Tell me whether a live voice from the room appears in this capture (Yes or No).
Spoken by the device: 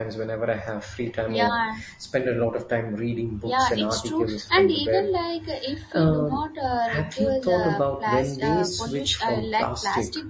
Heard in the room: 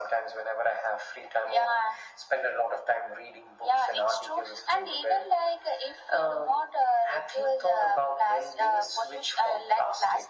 No